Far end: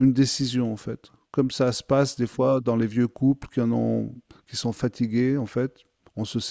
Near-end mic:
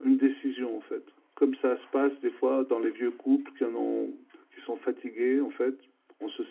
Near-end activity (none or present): none